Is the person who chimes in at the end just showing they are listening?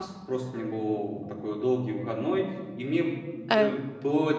Yes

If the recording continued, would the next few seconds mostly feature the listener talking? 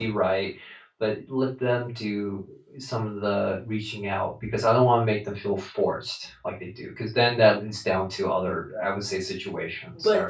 Yes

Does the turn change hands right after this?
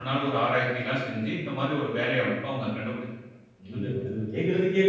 Yes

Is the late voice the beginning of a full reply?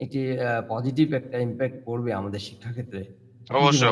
Yes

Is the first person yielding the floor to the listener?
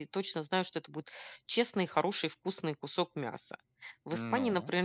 No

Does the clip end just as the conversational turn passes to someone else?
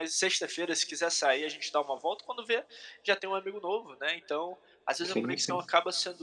No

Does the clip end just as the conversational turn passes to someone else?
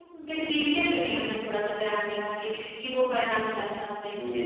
Yes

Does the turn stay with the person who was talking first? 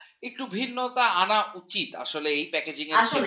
No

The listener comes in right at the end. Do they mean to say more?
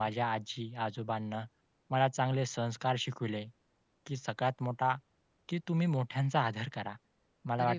No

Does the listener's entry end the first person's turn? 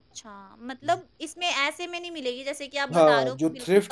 Yes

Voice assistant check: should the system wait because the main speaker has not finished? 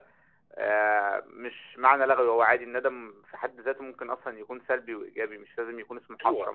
No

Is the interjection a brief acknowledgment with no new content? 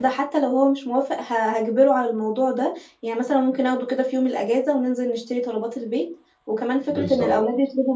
Yes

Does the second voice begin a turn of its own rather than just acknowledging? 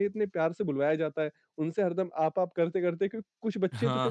No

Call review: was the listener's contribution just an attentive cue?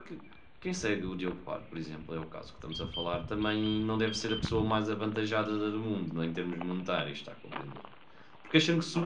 No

